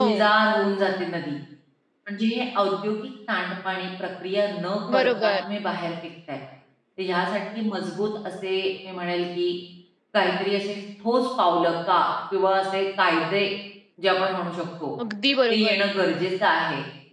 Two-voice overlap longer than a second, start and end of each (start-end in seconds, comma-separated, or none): none